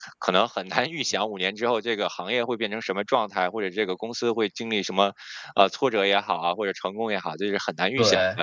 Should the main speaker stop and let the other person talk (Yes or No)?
No